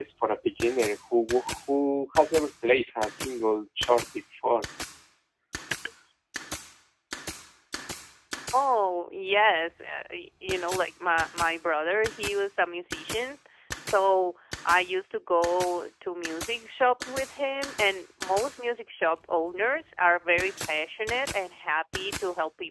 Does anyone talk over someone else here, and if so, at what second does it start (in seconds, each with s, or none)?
none